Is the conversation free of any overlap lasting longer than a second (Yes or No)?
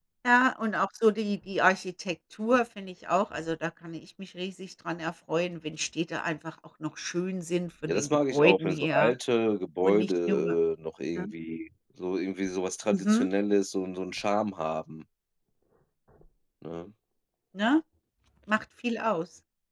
No